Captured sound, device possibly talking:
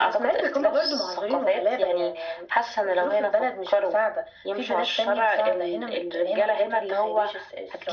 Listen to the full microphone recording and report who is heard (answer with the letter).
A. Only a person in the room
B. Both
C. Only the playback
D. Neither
C